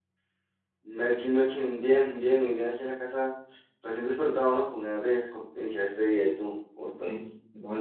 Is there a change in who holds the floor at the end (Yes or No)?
Yes